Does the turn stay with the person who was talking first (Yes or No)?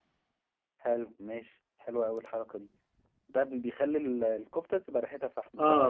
No